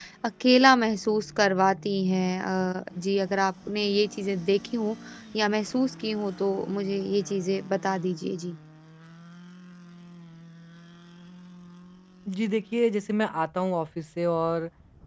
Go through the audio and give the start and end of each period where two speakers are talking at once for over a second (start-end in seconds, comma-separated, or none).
none